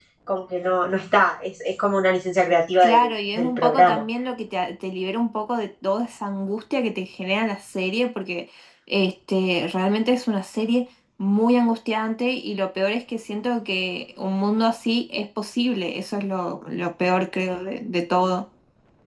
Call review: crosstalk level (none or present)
present